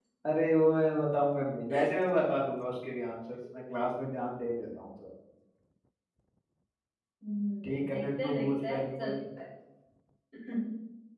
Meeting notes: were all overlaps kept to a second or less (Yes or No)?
No